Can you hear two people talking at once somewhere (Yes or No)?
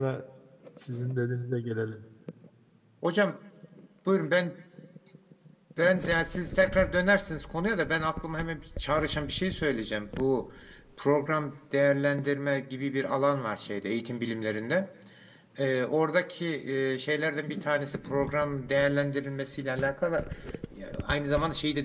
No